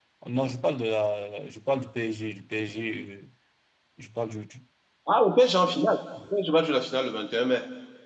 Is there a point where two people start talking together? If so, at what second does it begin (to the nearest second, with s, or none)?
none